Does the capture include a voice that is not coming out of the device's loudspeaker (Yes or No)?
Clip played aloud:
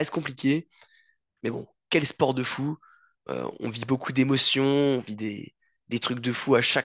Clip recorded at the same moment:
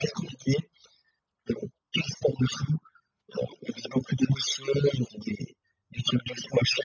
No